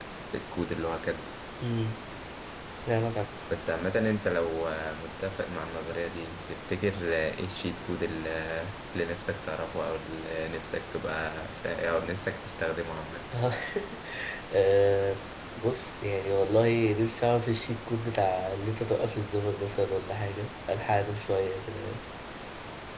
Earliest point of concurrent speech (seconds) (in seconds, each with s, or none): none